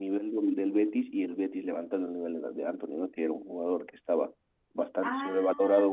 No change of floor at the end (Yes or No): Yes